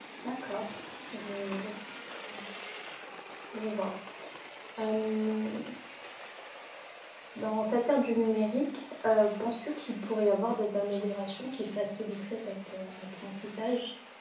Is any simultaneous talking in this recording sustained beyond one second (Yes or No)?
No